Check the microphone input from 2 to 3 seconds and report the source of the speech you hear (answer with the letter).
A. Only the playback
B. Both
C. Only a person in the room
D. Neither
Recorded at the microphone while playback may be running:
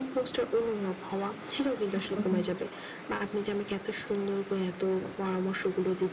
B